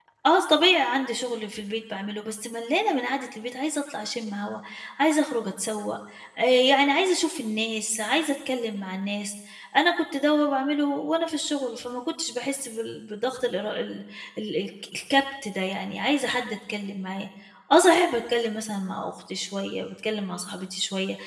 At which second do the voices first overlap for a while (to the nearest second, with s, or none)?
none